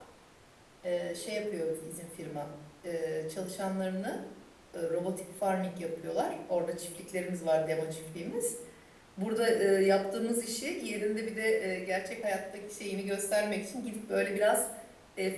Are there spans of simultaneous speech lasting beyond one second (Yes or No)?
No